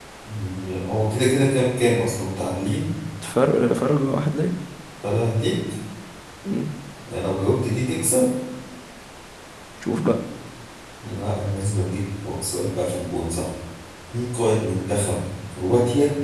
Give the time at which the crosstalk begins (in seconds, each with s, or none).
none